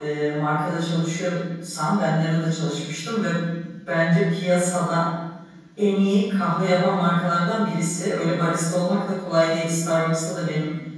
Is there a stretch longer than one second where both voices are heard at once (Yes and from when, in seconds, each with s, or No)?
No